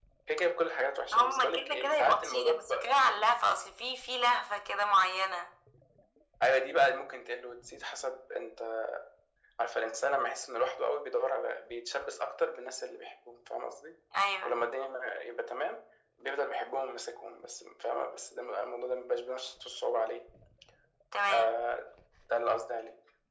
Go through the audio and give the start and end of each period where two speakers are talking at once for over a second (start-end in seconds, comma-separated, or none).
1.1-3.2